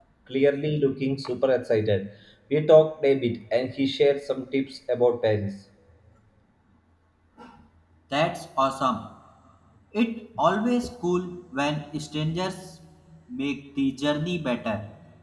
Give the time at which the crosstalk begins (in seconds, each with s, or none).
none